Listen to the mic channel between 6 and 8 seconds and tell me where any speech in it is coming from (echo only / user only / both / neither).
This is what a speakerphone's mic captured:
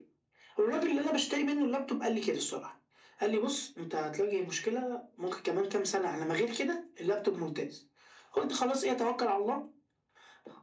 echo only